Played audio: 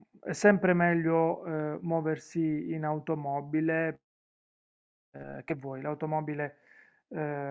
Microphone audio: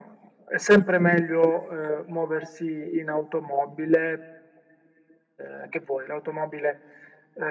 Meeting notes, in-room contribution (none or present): none